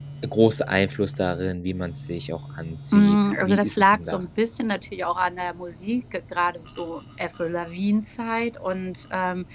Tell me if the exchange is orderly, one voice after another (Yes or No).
No